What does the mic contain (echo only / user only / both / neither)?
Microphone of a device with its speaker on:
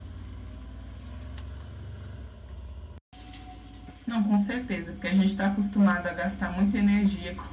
user only